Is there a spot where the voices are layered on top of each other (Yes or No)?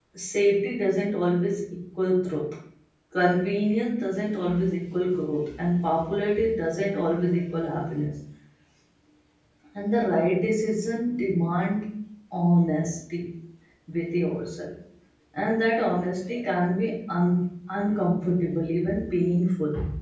No